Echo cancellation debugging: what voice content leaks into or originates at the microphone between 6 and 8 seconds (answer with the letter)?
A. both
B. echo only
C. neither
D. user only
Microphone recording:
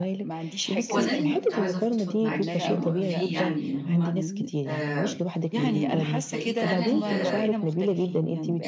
A